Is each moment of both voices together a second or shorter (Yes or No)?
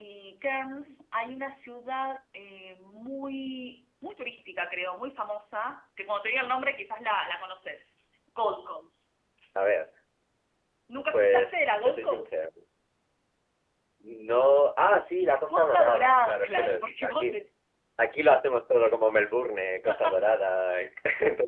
No